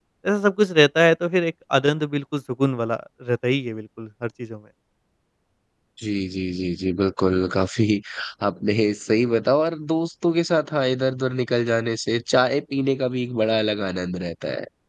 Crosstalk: none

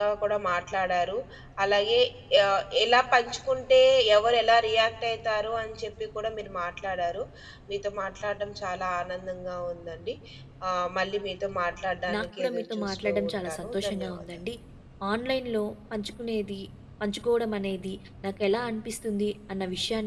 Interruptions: present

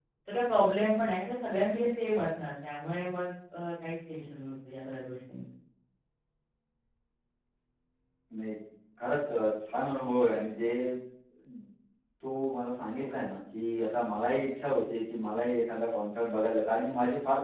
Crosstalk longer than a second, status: none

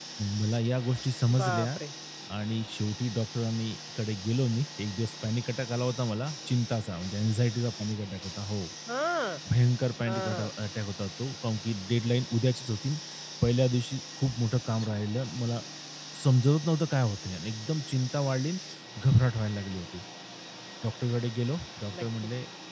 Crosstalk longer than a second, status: none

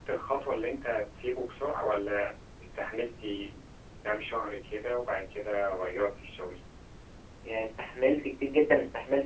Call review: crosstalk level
none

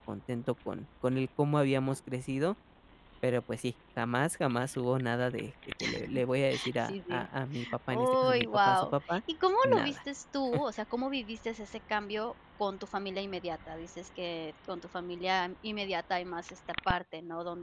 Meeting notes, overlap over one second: present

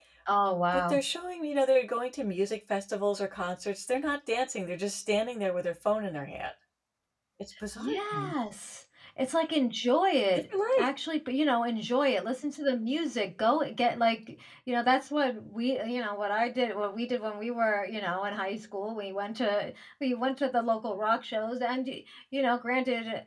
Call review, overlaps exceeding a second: none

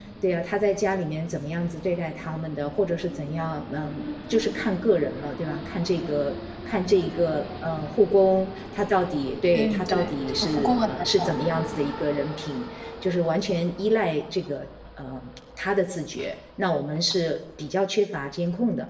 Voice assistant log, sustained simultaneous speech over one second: present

